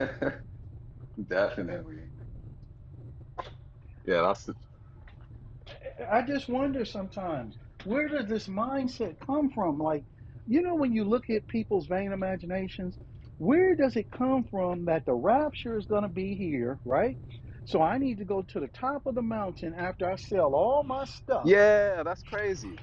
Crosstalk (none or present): none